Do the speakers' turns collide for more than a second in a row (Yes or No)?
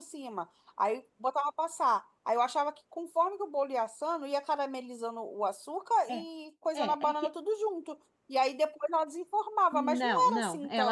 Yes